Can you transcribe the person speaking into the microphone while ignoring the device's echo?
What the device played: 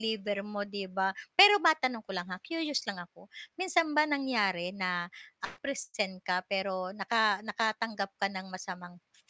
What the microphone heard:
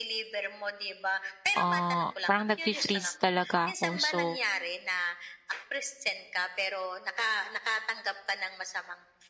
ah, parang nag-fe-freeze talaga ako, so

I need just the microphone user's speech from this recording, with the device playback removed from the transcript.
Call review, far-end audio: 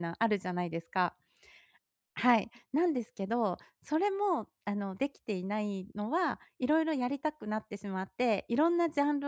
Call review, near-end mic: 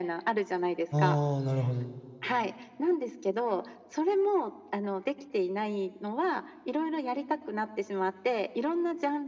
ああ、なるほど。

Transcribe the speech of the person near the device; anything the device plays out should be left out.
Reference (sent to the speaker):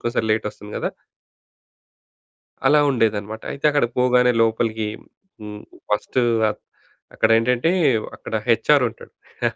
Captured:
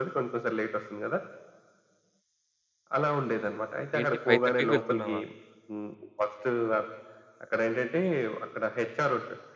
ఏంటి 5:30కి ఎళ్తున్నావా?

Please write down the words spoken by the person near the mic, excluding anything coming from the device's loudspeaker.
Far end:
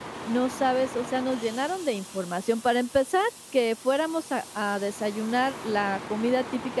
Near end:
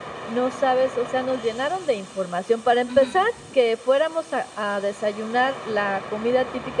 Ujú.

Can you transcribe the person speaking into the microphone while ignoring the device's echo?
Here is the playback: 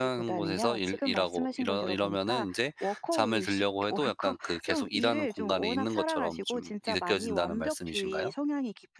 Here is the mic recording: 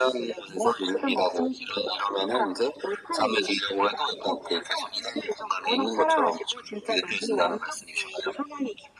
none

